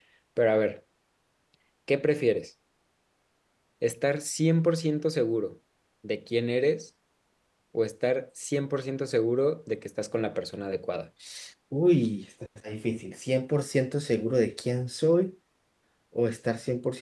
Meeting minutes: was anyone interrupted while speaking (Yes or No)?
No